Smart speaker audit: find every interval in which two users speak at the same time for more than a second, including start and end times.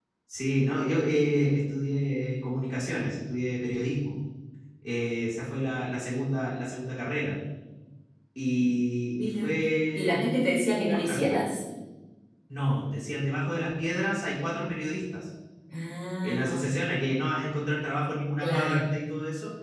10.0-11.4

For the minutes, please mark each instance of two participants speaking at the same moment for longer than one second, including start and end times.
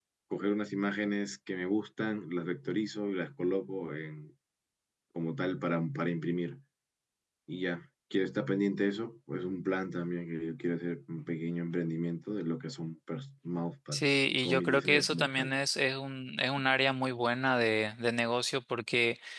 13.9-15.6

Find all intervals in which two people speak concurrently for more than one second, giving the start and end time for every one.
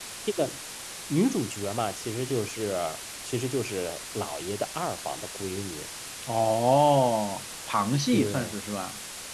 none

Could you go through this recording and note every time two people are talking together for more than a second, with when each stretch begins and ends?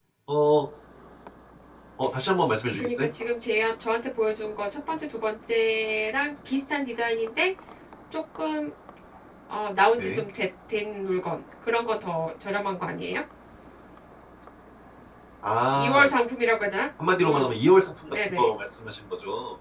none

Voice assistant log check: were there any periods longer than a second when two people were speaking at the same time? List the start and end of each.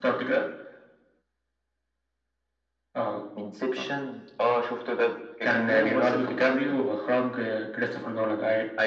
5.4-6.7

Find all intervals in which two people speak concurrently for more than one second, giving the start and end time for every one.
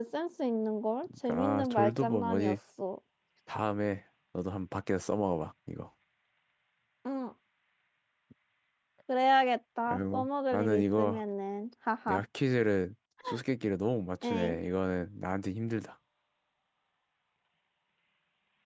1.1-2.6, 9.9-11.2

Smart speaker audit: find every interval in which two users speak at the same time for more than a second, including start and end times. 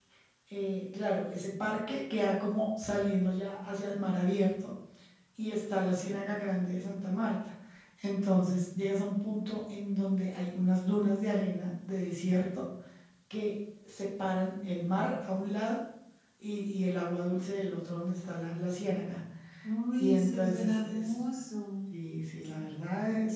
19.9-21.2

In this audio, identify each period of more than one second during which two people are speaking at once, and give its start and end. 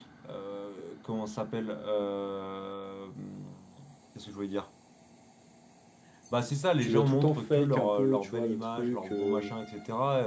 6.8-9.5

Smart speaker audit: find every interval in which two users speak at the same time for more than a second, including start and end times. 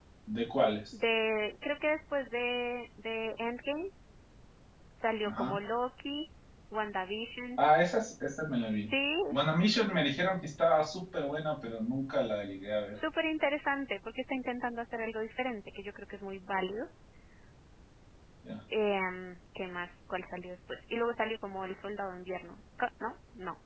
none

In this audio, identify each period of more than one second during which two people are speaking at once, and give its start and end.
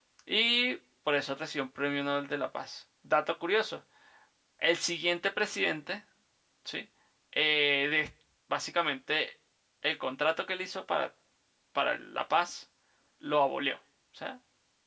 none

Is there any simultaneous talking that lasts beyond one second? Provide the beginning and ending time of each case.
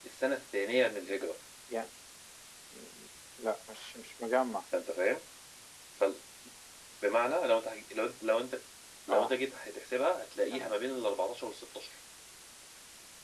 none

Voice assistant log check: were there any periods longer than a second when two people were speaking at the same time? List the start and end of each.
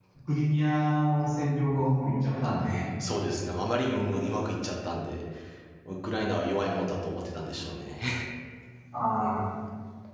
none

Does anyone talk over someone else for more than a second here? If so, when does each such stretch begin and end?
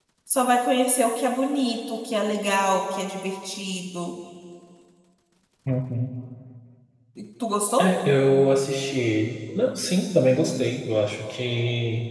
none

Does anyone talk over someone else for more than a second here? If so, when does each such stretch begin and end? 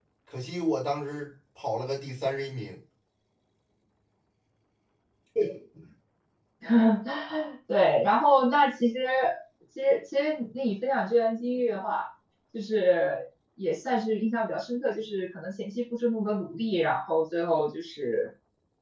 none

